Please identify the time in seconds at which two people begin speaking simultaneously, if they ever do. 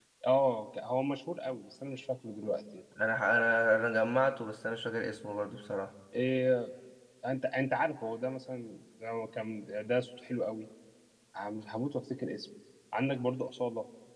none

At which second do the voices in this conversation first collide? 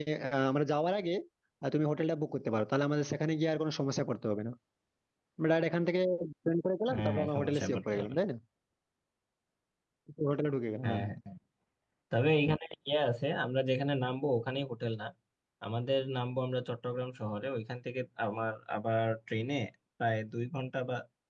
7 s

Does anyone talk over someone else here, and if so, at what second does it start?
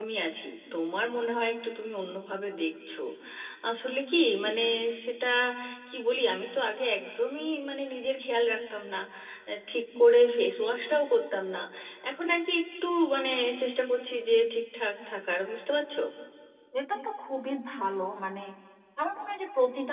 none

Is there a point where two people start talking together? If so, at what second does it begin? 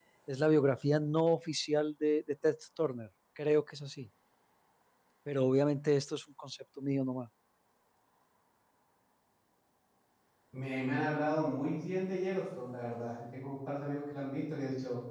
none

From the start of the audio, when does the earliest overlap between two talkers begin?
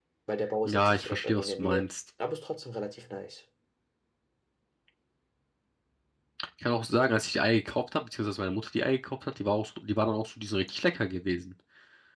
1 s

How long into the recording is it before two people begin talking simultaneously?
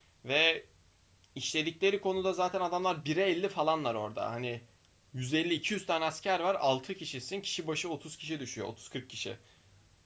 none

